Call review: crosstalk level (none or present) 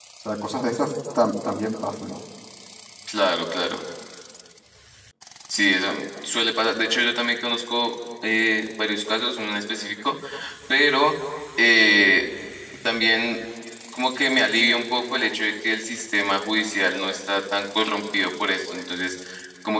none